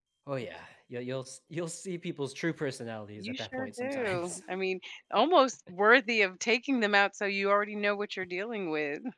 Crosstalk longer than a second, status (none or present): present